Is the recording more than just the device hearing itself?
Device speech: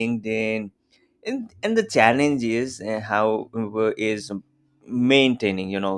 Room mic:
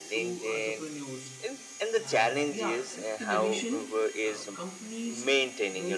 Yes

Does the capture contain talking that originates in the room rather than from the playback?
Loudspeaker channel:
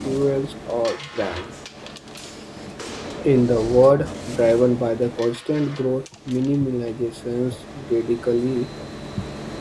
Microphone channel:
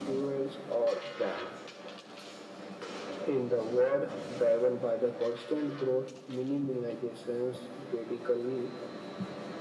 No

